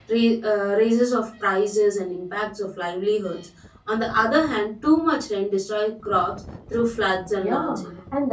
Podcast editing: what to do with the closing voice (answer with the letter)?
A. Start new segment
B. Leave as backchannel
A